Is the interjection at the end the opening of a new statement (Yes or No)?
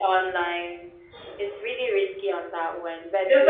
Yes